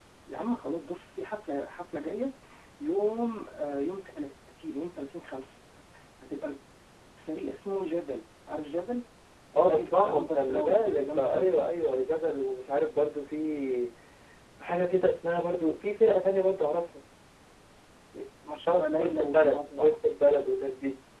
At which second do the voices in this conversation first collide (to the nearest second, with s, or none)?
10 s